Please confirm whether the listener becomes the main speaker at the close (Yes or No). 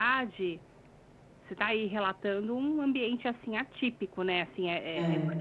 No